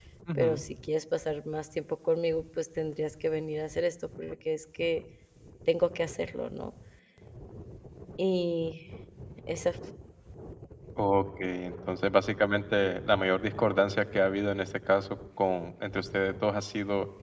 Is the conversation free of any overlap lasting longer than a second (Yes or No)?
Yes